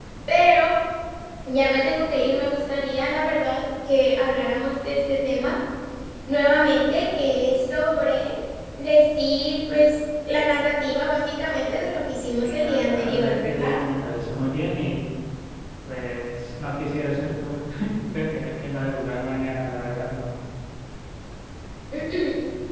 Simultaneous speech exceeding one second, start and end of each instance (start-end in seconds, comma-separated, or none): 12.4-13.7